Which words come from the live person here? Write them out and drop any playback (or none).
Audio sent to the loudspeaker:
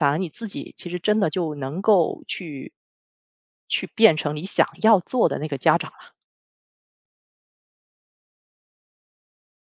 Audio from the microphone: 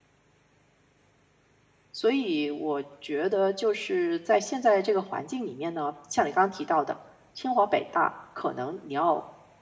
所以我觉得就是在现在这个环境里面呢，像你刚刚提到的，清华北大，可能你要